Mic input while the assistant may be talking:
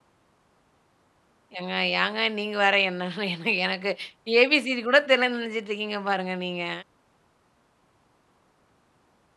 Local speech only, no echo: ஏங்க, ஏங்க நீங்க வேற? என்ன என்ன எனக்கு ஏ, பி, சி, டி கூட தெரியலன்னு நெனச்சிட்டுருக்கீங்க பாருங்க, நீங்க.

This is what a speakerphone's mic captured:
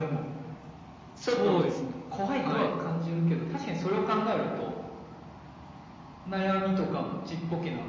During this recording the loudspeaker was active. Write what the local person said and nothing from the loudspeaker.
そうですね、はい。

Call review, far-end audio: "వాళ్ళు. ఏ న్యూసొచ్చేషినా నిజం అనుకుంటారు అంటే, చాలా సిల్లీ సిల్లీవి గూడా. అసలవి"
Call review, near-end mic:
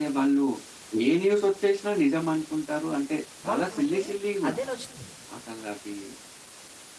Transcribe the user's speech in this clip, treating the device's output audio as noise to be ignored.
వాళ్ళకి మళ్ళీ అదే నచ్చుతుంది.

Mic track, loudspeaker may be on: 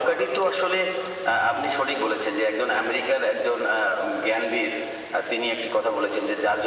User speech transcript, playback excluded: none

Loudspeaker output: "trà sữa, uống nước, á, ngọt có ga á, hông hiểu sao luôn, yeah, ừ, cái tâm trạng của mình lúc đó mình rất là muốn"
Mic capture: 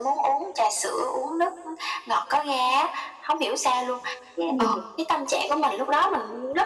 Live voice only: Ừm.

